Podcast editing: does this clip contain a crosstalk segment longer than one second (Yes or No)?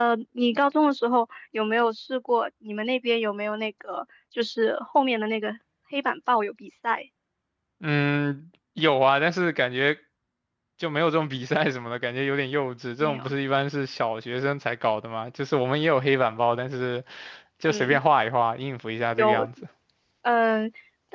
No